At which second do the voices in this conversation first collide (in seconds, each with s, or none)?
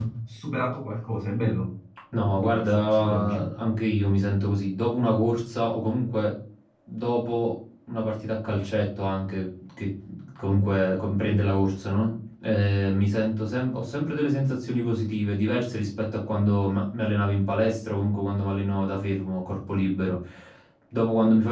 2.1 s